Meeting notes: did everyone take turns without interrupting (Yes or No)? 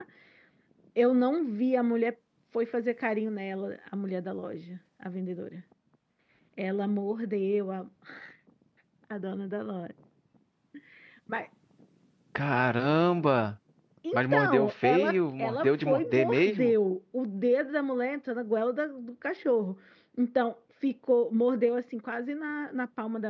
No